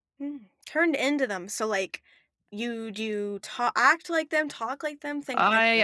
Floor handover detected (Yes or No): Yes